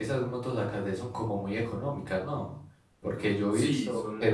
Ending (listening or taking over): taking over